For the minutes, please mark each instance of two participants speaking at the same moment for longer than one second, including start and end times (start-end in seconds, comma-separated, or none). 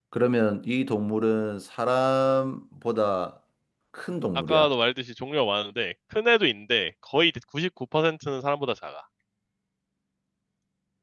none